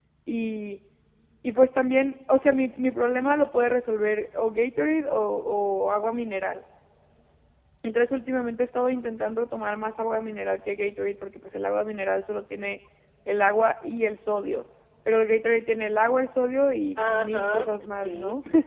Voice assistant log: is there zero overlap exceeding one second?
No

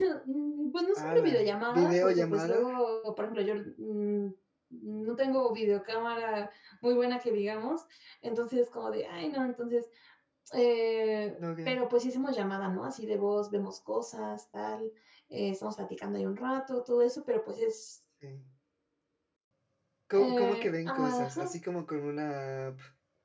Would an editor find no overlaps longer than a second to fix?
No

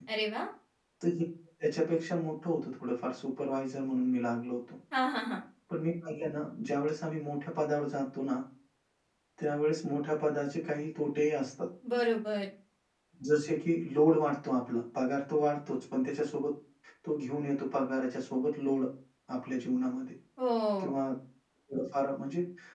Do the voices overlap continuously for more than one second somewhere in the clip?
No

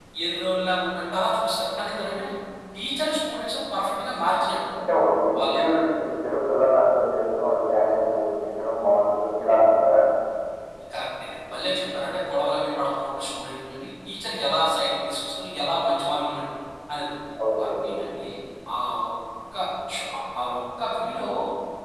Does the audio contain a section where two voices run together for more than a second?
No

